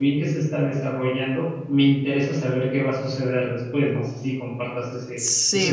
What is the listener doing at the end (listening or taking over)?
taking over